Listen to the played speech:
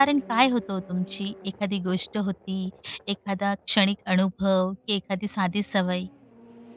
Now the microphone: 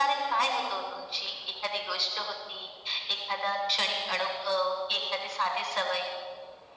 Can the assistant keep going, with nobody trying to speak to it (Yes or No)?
Yes